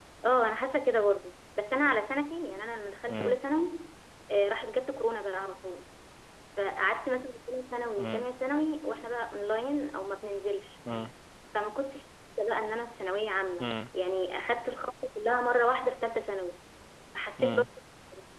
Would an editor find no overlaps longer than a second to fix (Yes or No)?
Yes